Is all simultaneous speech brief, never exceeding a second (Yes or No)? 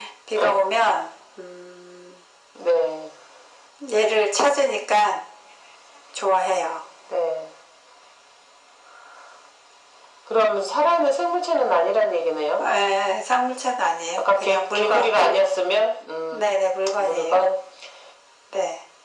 No